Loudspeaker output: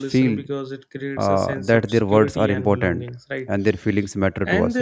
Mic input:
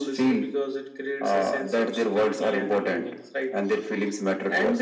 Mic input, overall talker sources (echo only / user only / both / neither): echo only